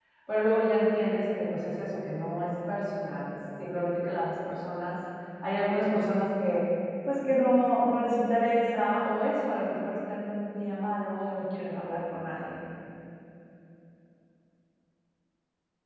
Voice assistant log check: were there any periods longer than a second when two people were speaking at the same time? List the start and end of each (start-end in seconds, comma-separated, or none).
none